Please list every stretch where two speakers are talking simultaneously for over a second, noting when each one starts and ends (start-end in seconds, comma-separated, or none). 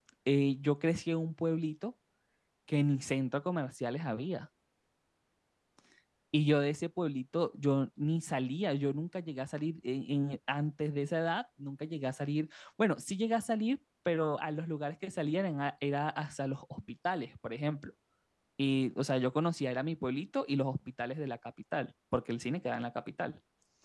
none